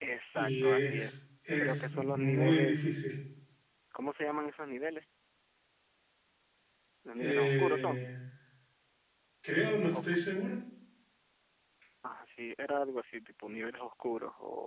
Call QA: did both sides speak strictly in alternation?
No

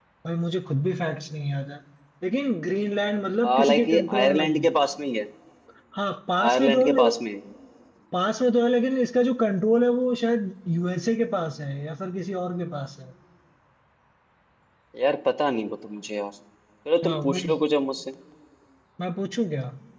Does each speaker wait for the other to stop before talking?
No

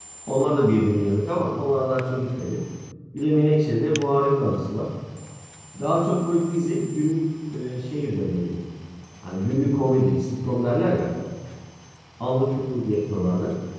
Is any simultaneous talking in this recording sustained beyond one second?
No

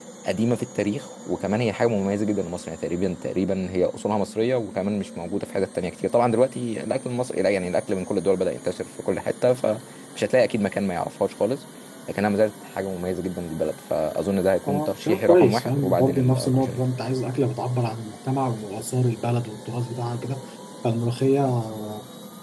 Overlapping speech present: Yes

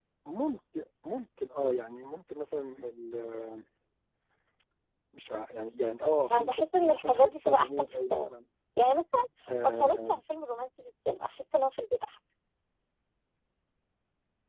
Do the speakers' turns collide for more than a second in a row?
Yes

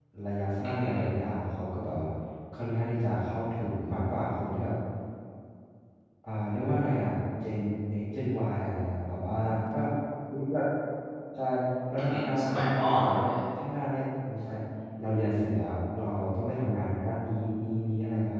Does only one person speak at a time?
No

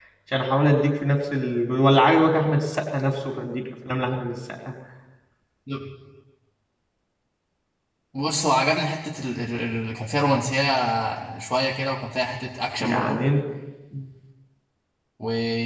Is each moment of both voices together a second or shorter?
Yes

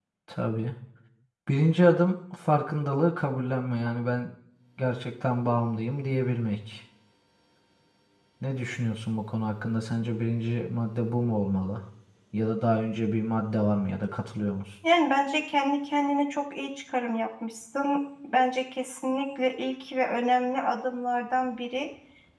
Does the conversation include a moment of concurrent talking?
No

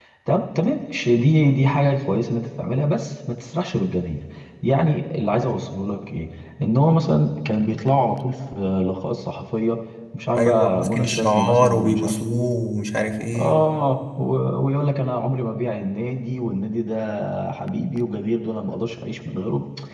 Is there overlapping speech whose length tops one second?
Yes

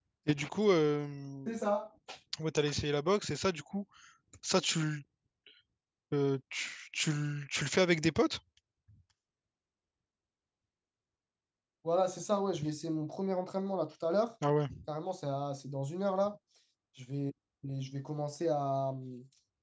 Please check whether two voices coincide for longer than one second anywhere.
No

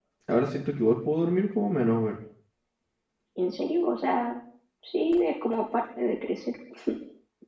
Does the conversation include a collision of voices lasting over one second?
No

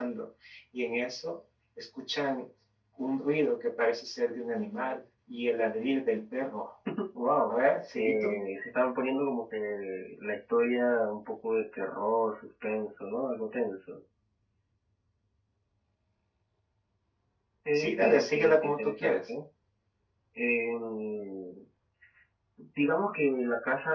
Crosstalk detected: Yes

